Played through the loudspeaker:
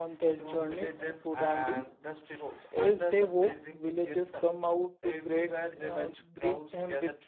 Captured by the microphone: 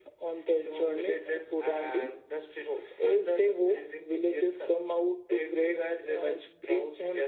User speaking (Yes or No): No